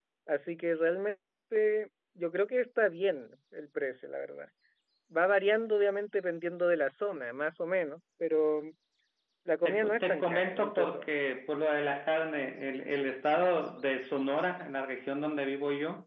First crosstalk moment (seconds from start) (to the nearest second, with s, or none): 10 s